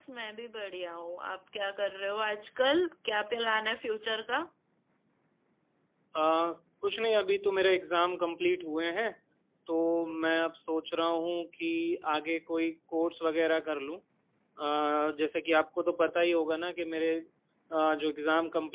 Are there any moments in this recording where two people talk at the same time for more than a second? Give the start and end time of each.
none

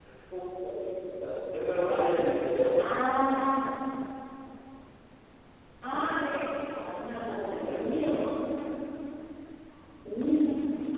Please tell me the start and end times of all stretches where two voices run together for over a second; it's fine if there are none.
6.9-8.4

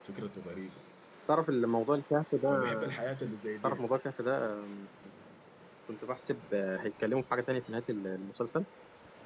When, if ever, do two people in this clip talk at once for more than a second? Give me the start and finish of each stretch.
none

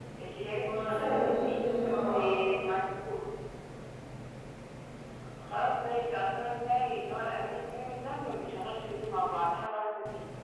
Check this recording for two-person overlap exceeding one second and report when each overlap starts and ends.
0.6-2.1

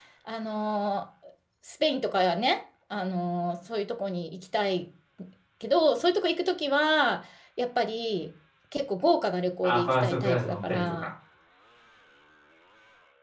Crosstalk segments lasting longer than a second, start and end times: 9.6-11.1

